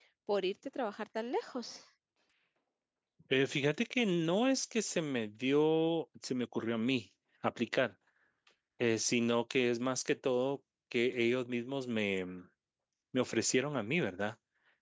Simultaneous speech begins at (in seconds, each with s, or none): none